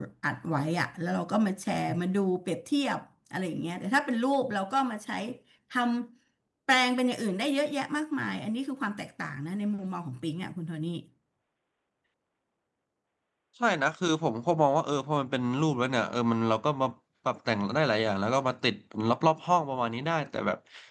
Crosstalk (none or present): none